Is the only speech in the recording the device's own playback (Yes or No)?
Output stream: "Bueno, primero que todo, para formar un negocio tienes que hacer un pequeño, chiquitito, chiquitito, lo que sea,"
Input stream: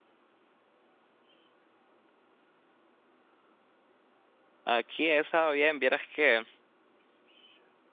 No